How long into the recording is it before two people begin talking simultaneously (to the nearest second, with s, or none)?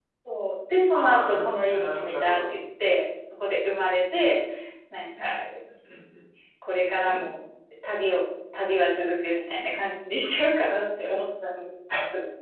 1 s